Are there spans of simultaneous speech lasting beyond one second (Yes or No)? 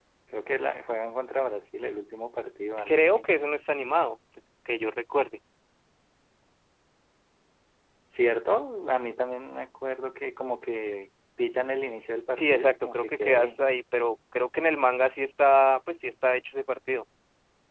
Yes